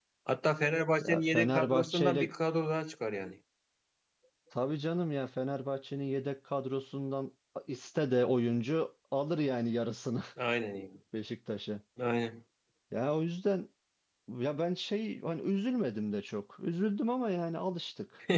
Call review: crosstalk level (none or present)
present